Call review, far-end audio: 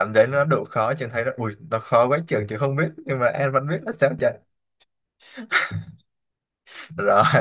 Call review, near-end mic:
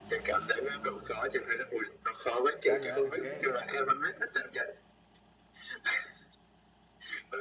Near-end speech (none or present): present